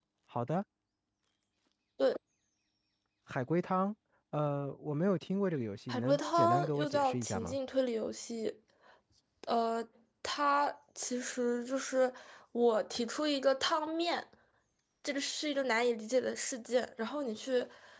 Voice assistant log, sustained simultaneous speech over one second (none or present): present